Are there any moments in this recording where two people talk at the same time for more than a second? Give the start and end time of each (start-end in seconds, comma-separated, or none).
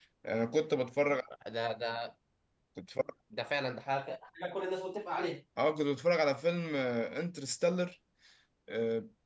none